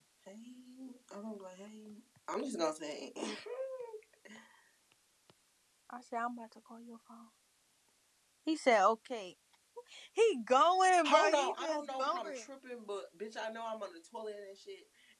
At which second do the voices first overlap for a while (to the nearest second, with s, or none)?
11 s